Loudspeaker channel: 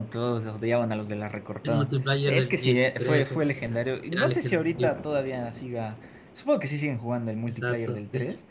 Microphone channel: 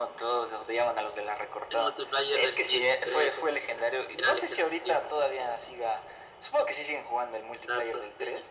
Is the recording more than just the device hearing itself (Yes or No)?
No